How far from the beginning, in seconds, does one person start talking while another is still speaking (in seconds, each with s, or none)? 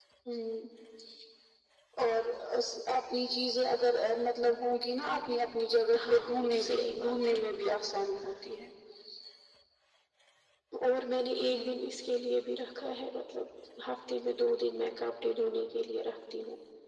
6.1 s